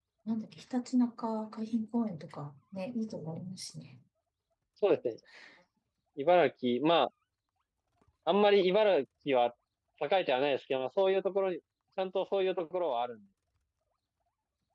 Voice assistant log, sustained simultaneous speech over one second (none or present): none